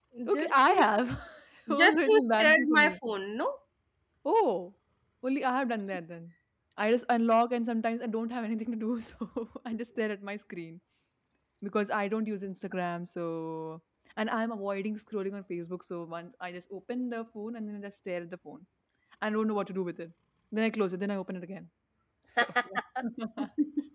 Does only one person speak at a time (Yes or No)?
No